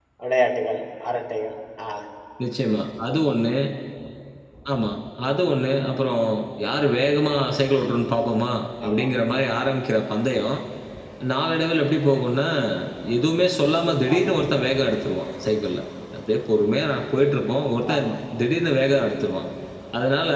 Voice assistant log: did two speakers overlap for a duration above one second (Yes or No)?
No